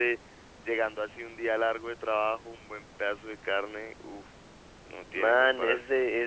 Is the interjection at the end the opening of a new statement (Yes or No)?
Yes